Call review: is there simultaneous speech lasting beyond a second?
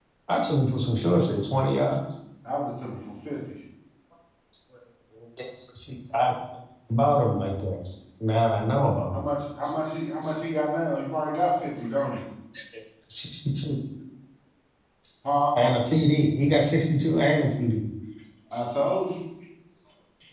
No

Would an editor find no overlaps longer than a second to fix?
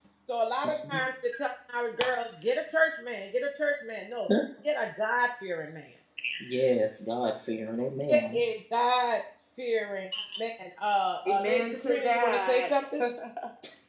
No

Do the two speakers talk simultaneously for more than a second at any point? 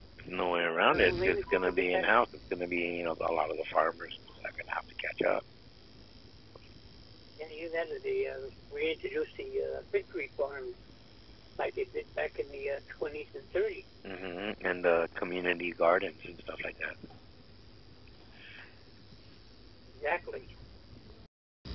Yes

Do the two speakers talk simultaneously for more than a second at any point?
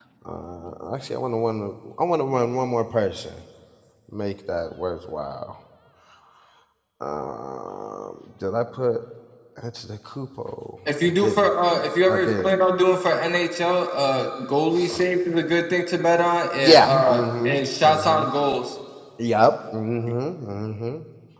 Yes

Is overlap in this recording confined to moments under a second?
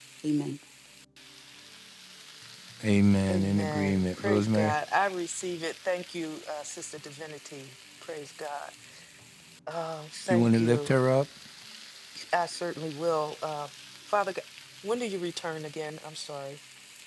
No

